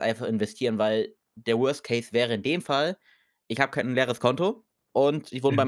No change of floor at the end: Yes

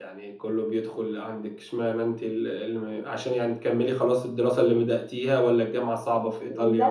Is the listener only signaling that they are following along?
No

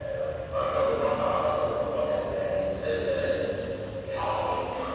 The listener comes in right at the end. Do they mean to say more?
Yes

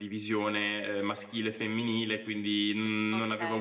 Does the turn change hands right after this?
No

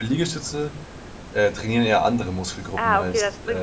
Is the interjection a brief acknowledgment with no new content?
No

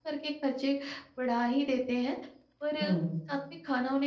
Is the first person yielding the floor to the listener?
No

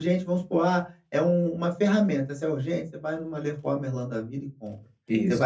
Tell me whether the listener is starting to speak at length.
No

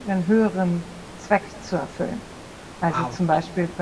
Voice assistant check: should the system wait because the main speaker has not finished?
Yes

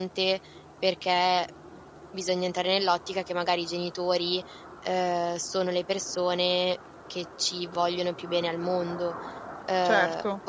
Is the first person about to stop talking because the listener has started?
No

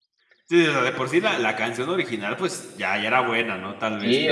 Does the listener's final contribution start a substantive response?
Yes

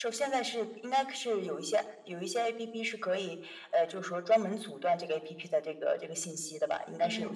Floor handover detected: Yes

